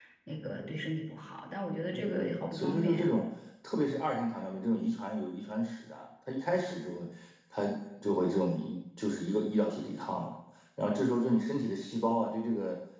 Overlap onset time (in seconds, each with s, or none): 1.9 s